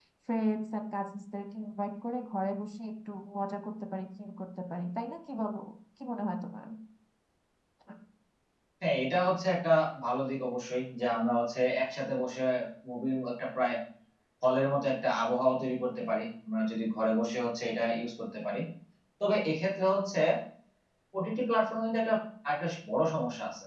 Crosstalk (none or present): none